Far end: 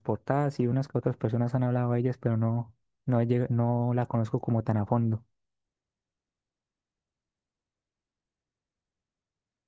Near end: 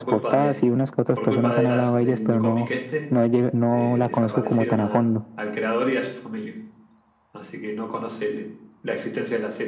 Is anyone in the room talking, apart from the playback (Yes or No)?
Yes